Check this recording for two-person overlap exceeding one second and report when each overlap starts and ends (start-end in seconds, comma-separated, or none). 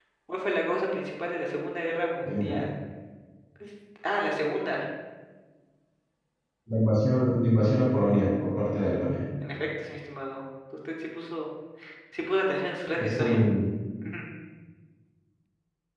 none